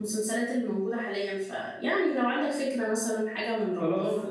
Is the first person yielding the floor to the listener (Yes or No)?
Yes